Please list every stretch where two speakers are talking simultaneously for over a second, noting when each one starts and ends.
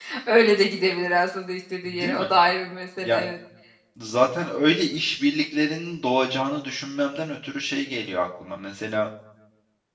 none

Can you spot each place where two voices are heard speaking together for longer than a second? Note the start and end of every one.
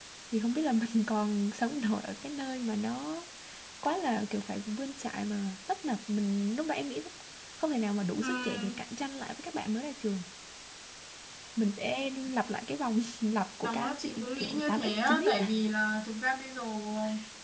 13.6-15.5

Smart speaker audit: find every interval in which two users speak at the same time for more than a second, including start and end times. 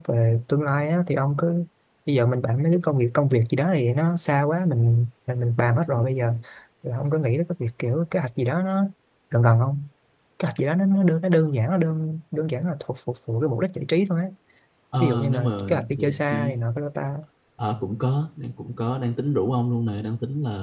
15.0-16.6

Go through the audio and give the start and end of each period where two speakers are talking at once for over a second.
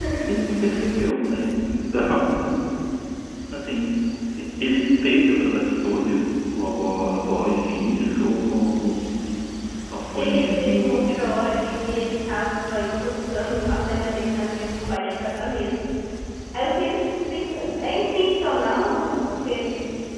10.1-11.5

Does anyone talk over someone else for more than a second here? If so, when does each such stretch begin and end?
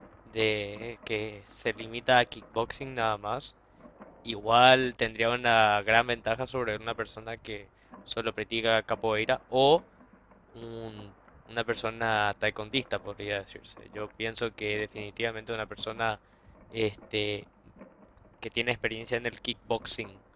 none

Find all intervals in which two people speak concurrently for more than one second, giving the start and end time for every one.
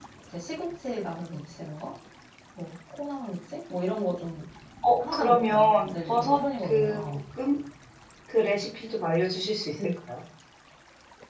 5.0-7.0

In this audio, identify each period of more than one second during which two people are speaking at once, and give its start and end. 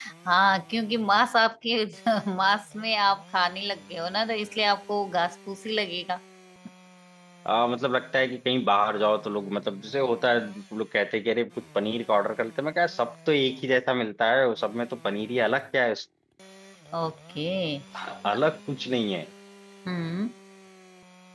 none

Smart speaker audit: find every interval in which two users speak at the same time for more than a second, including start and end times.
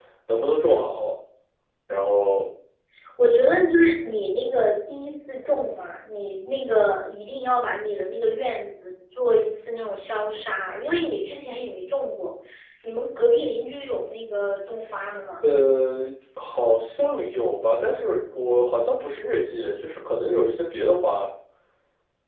none

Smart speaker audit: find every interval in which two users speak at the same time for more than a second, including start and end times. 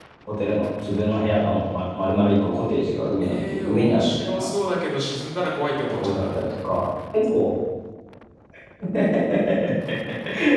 3.2-4.5

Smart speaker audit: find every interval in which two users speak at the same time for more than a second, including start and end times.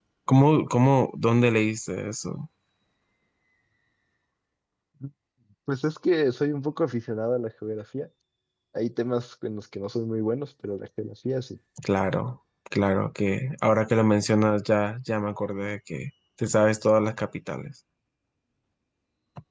none

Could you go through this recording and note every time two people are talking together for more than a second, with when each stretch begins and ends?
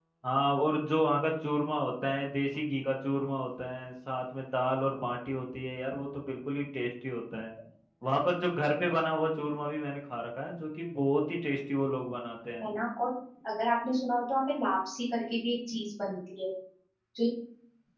none

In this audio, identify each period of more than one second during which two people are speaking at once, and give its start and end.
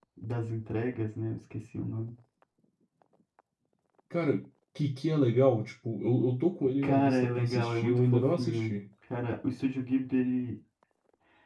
6.8-8.7

